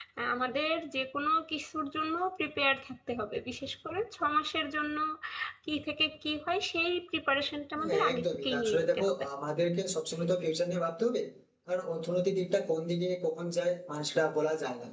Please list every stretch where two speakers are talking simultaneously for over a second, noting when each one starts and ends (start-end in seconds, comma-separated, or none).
7.8-9.2